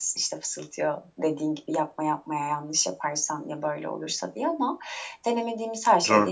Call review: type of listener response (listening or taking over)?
listening